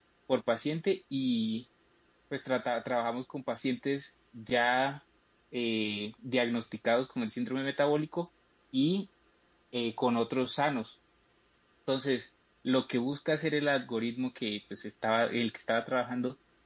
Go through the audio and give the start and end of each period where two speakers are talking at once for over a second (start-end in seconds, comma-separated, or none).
none